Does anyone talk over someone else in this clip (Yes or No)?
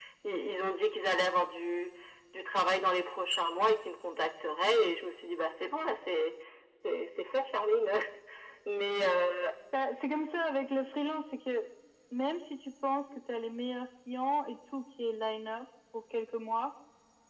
No